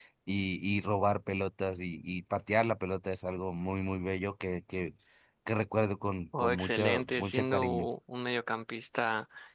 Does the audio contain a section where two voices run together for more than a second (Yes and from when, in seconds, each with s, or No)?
Yes, from 6.3 s